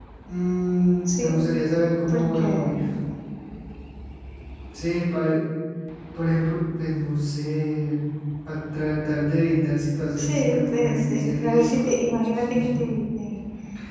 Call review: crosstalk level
present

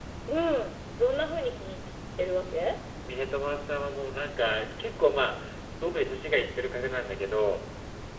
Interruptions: none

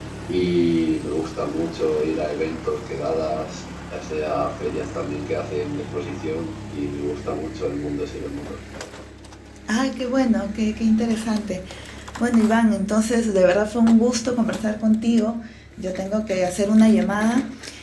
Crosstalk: none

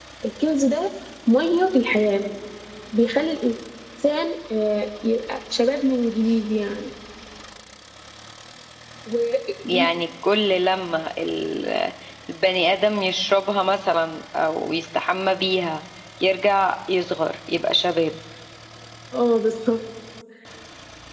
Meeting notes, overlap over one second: none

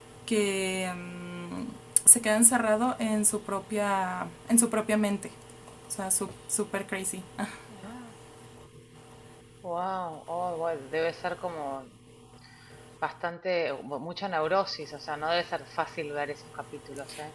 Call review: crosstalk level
none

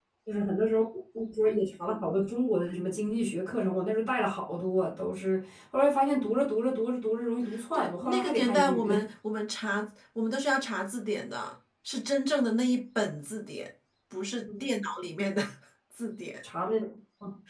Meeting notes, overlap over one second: present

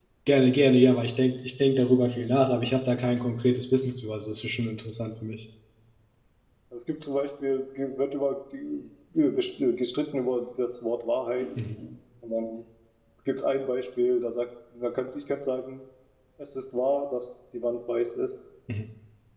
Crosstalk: none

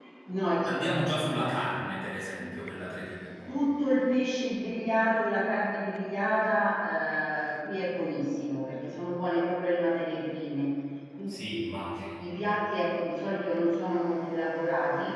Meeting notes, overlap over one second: none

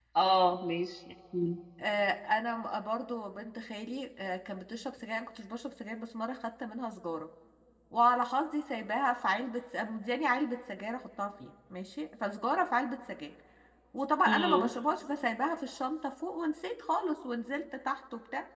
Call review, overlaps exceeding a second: none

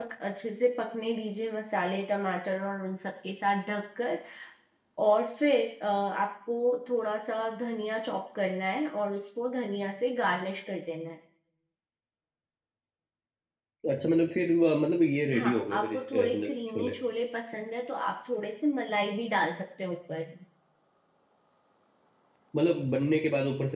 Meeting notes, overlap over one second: present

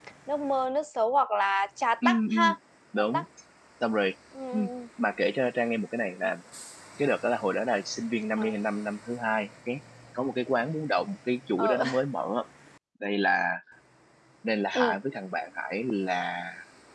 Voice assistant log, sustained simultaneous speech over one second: none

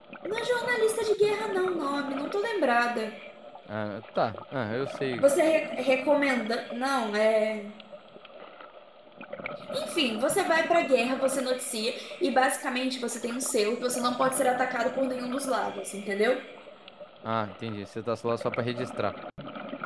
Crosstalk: none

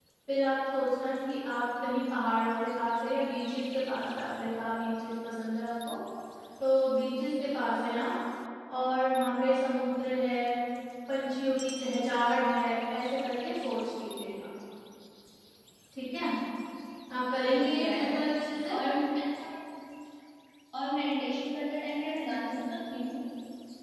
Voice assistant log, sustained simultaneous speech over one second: none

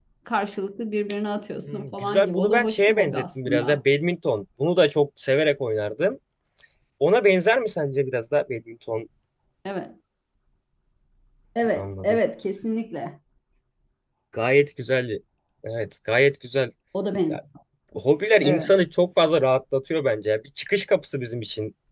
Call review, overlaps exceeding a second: present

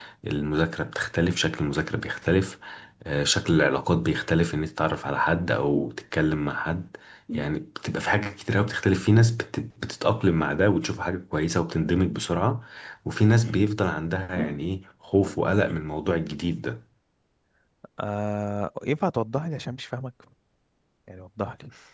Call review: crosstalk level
none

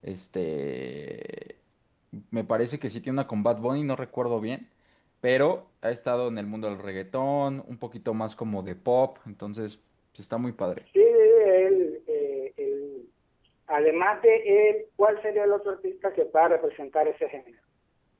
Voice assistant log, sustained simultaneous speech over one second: none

